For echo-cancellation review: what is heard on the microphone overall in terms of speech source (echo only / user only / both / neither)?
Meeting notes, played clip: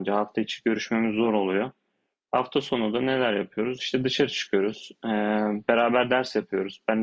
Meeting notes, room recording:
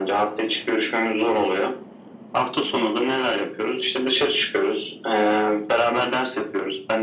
echo only